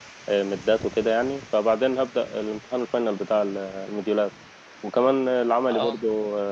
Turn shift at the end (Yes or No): No